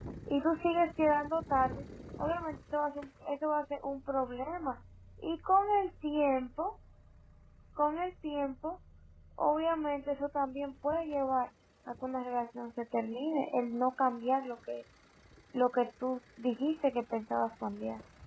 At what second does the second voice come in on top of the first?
none

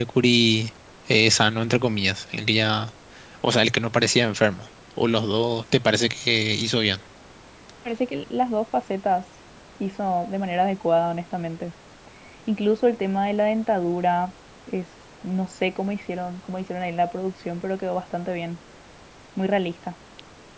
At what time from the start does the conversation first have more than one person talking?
none

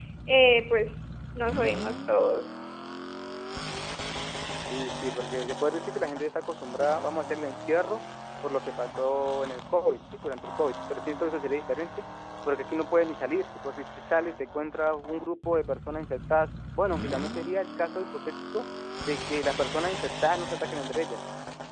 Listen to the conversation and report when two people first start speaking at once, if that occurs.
none

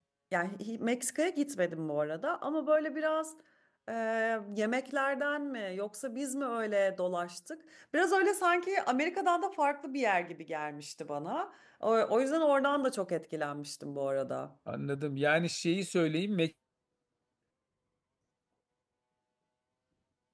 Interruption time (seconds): none

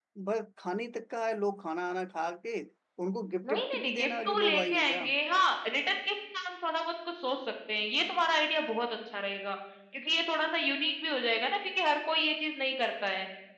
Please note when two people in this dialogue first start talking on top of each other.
3.4 s

